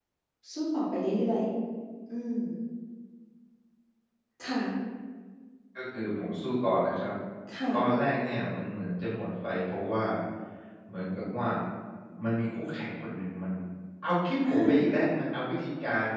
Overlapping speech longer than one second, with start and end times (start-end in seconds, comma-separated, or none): none